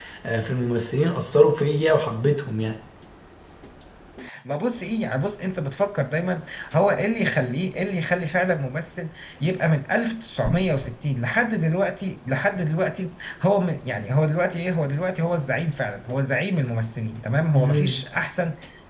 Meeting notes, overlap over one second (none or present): none